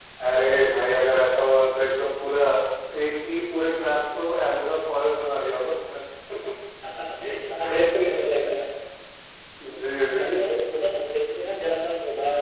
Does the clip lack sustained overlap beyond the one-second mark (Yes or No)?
Yes